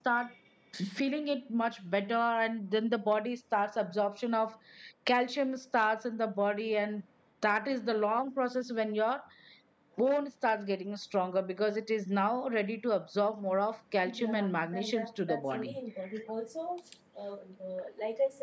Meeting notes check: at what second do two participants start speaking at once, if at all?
14.1 s

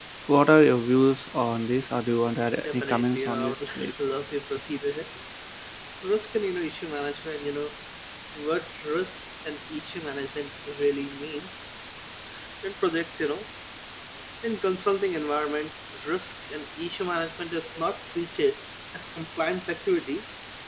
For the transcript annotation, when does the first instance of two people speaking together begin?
2.5 s

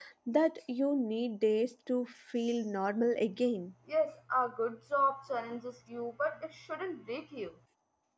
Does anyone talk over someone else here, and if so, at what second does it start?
none

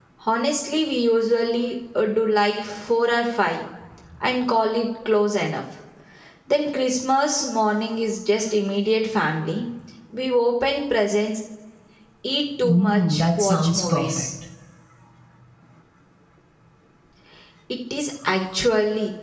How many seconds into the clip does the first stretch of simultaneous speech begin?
12.6 s

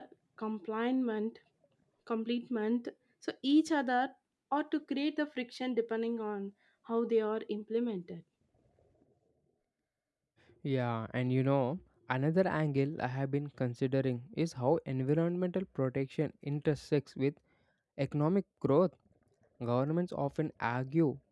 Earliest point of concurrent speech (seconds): none

